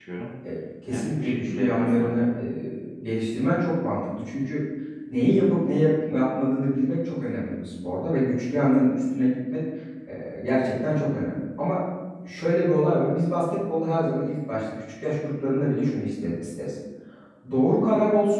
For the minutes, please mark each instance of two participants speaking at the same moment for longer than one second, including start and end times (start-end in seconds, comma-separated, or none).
0.9-2.4